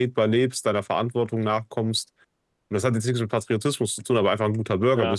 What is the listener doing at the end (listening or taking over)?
listening